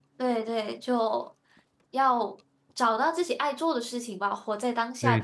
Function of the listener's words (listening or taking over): taking over